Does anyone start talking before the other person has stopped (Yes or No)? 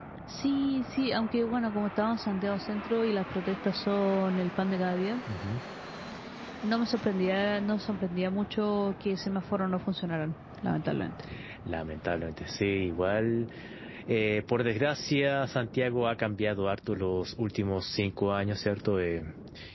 No